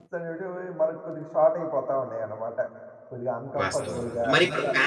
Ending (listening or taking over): taking over